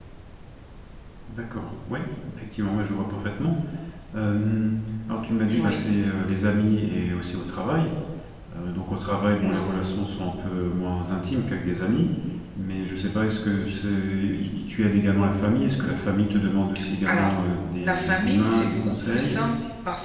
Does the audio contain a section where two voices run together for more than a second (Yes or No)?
Yes